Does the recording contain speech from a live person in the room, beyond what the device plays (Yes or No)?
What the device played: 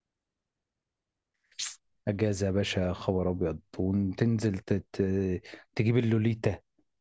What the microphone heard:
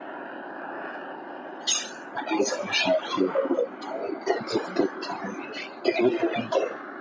No